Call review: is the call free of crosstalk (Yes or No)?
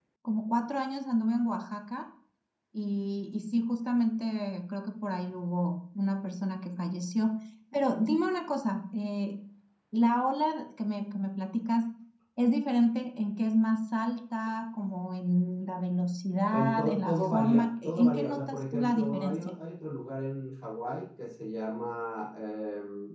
No